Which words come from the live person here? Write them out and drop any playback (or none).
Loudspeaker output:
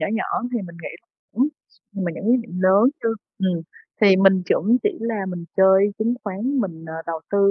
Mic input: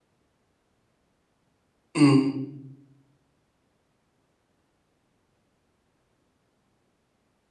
Ừm.